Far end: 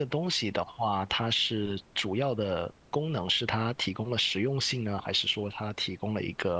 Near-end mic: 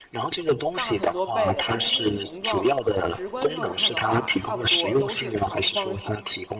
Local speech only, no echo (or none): 大很多倍的，但是它们的形状直观上看的话，差不多都是长方形，